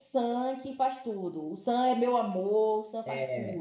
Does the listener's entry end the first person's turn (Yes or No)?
Yes